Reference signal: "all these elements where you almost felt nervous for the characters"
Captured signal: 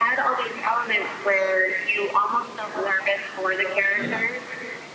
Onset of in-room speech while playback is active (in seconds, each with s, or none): 3.9 s